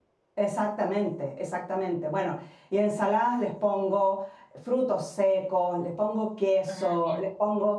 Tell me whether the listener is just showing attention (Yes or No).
Yes